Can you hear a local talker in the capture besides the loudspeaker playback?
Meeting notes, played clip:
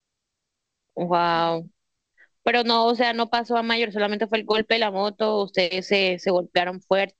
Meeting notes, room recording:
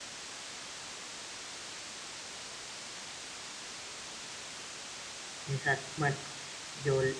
Yes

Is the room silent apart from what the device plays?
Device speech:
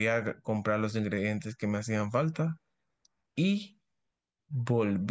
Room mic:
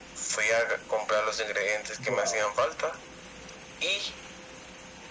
No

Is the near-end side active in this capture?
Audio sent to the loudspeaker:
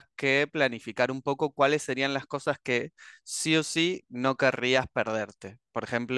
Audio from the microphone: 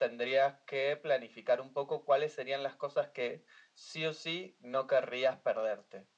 No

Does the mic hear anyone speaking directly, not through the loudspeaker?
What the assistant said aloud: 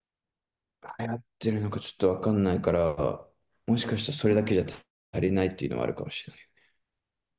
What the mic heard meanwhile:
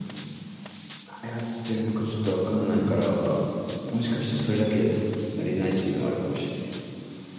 No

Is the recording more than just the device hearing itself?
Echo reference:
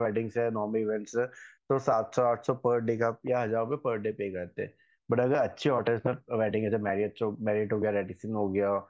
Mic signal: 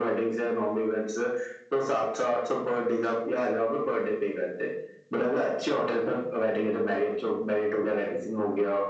No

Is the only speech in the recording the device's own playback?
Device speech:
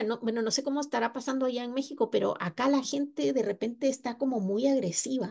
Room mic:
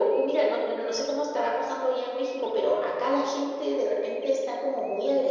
Yes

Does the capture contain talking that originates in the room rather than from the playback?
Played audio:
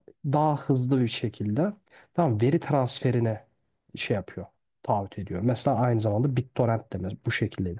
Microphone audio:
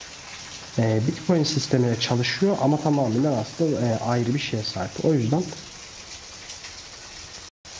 Yes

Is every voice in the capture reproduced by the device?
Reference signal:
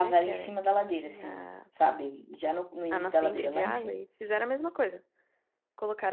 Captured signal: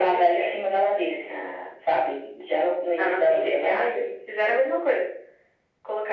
Yes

